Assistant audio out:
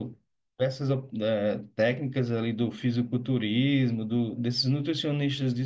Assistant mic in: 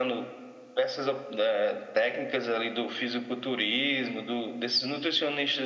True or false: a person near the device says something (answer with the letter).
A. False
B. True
A